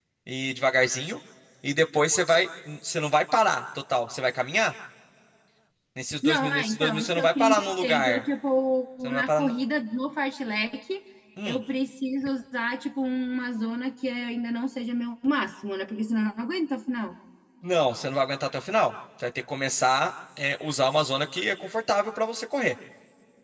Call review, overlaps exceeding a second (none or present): present